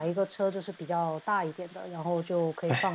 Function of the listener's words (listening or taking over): listening